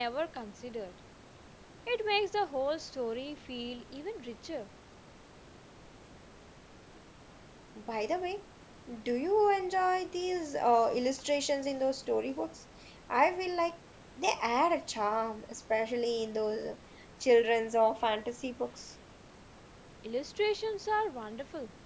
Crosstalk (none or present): none